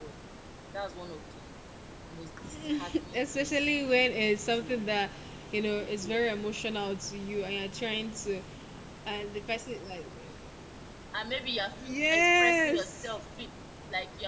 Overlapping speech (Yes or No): Yes